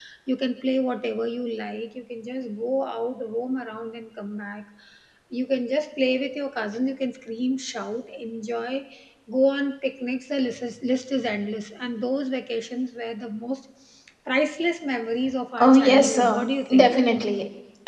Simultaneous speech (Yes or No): Yes